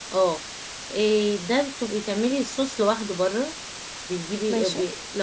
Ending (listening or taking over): listening